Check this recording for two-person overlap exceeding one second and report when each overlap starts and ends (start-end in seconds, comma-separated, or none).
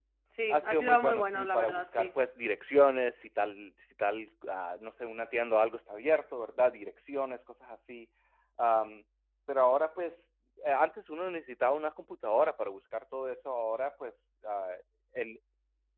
0.5-2.1